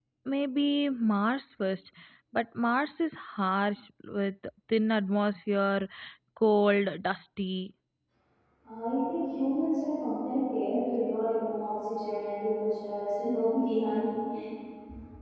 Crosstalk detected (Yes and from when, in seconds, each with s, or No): No